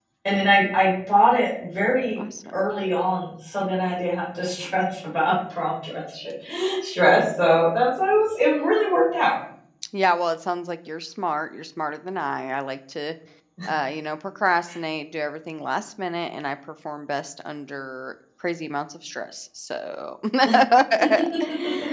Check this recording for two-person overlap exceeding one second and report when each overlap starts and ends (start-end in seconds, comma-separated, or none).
none